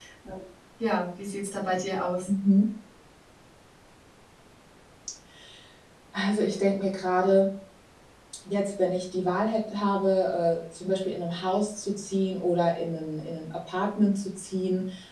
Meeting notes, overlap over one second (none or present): none